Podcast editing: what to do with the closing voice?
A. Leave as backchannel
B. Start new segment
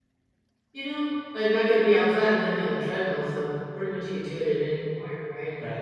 B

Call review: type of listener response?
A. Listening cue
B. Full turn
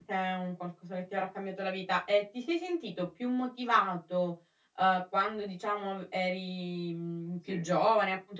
A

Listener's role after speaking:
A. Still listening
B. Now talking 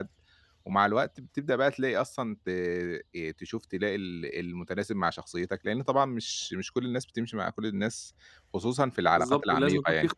B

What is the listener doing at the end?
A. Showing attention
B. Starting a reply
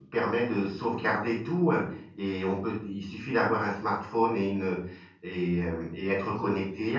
A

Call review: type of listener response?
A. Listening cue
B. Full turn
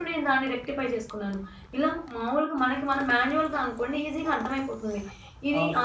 A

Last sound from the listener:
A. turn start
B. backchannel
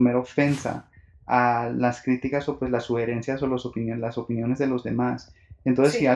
B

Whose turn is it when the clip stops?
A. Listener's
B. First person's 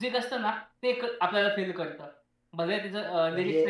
A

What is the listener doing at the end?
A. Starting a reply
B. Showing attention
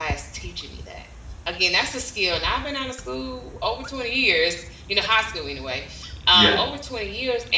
B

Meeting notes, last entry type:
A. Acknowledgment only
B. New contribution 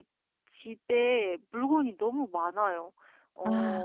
A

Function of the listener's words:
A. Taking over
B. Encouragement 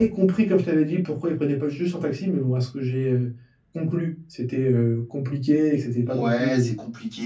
A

